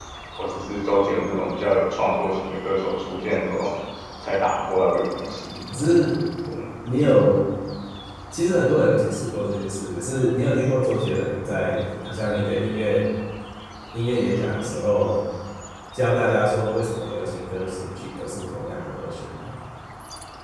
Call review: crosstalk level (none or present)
none